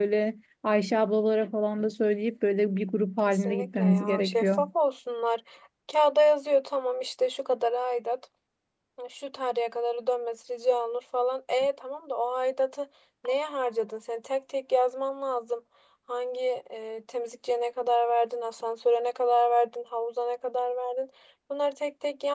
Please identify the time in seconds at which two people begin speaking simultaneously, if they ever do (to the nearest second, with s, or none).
3 s